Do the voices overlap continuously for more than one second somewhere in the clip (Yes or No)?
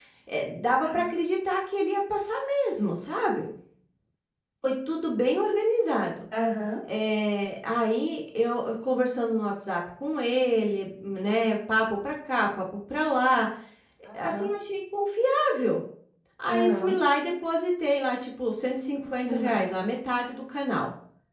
No